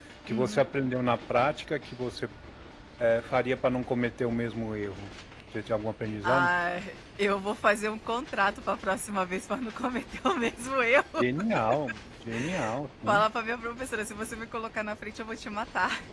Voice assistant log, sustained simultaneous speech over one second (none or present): none